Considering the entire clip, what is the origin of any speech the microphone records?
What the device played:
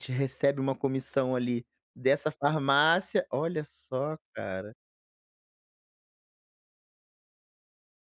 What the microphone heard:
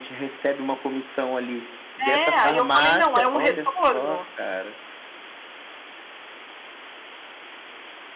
both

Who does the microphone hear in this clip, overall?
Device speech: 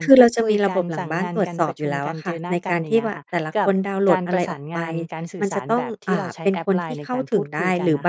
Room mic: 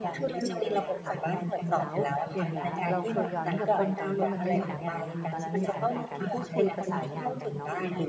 both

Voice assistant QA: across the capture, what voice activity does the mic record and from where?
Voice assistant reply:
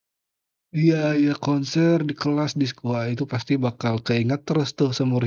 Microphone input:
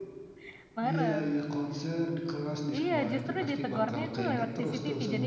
both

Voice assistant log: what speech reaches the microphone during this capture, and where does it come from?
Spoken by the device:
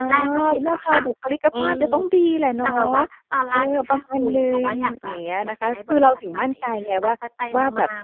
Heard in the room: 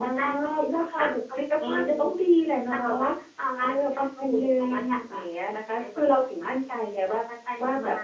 echo only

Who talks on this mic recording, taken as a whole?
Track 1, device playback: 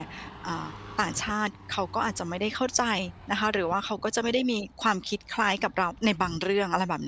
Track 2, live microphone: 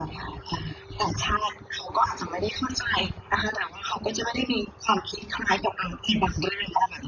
echo only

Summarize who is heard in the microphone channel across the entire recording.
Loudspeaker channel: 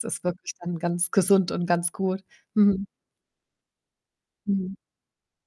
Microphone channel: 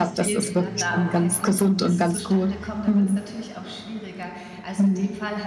both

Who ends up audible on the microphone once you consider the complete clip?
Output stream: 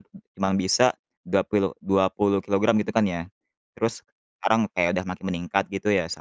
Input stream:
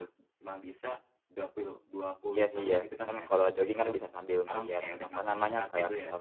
both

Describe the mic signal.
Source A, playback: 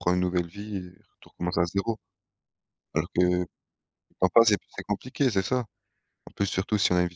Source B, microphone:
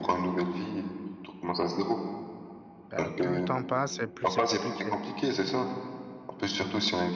both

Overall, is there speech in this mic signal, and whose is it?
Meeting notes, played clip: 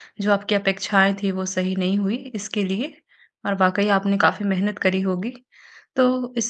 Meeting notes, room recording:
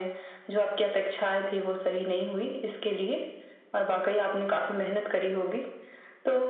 echo only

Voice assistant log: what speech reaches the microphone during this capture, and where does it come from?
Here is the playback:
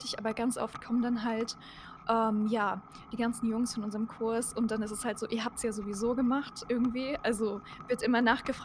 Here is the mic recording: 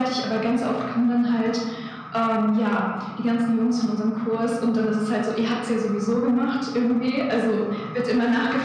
echo only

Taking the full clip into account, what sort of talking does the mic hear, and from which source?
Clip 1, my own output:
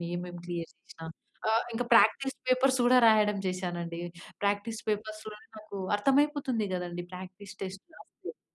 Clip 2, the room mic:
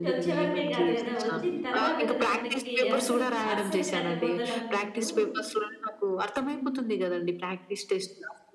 both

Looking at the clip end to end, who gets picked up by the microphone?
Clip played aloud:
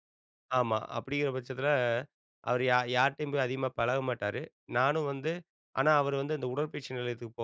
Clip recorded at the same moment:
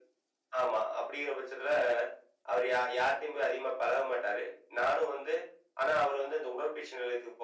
echo only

